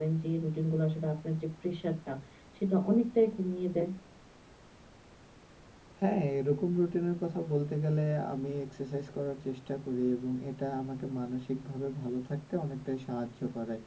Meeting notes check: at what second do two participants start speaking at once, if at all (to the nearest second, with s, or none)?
none